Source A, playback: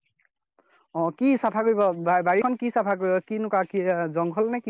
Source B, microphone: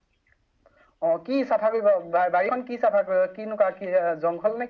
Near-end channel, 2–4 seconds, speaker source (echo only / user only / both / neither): echo only